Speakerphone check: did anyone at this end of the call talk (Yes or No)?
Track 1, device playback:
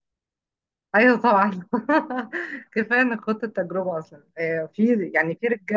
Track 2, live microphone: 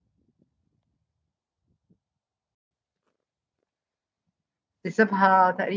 Yes